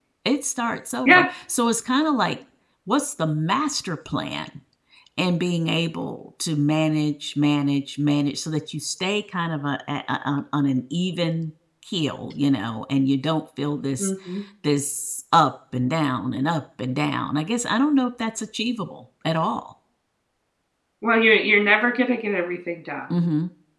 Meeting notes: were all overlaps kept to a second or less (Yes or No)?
Yes